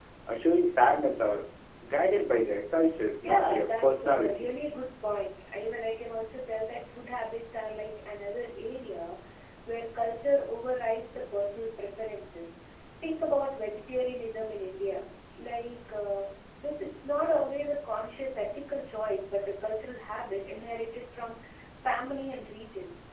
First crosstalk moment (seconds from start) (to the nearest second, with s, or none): 3 s